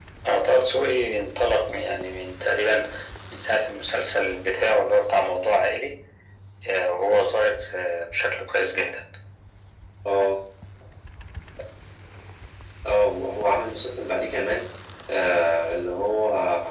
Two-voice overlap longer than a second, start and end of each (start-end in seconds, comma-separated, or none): none